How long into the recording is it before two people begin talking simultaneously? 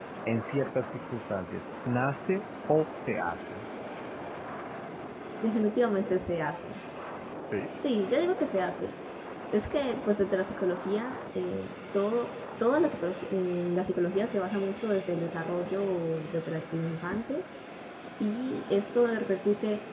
none

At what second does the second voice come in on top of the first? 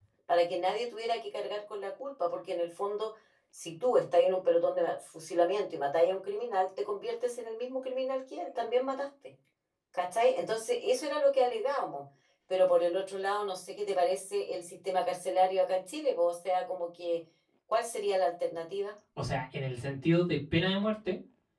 none

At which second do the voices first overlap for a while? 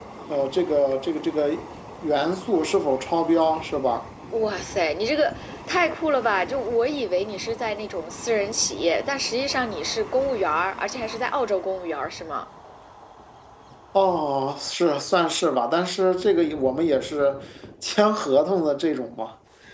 none

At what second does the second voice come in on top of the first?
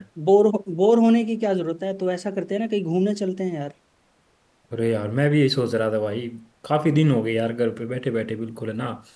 none

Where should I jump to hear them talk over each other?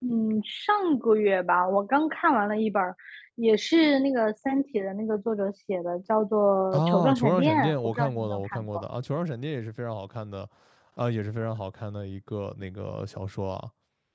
6.7 s

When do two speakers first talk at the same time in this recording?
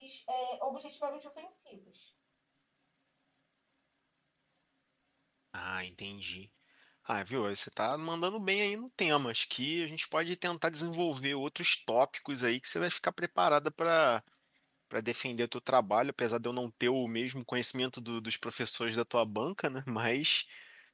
none

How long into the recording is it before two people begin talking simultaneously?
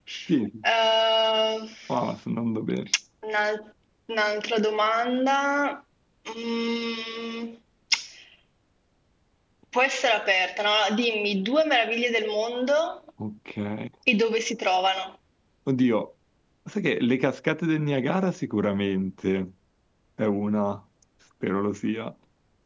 none

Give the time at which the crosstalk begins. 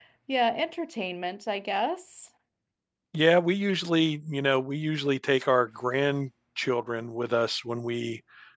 none

